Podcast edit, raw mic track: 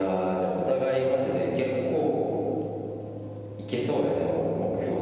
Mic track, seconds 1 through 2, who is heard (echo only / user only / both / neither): echo only